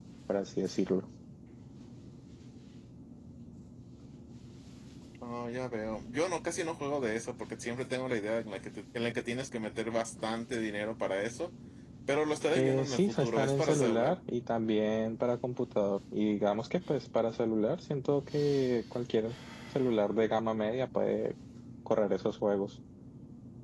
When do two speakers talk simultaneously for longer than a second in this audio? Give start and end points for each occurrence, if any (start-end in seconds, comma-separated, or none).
12.6-14.2